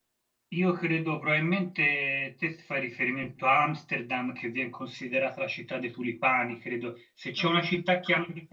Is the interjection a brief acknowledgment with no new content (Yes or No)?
Yes